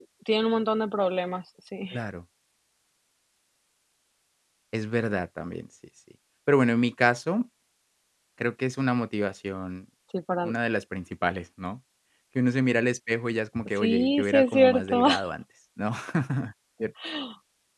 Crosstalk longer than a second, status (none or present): present